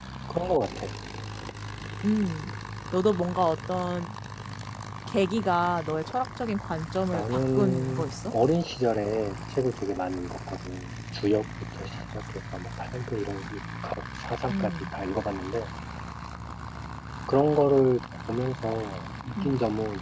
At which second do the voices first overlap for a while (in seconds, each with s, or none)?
7.1 s